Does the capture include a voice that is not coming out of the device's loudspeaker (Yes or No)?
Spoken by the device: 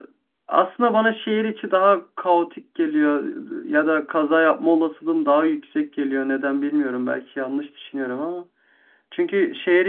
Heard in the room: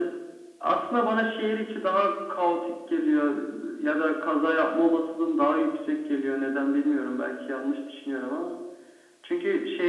No